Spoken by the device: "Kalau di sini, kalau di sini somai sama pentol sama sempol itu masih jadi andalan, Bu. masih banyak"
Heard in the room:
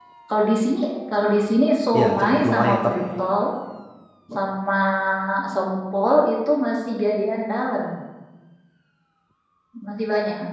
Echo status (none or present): present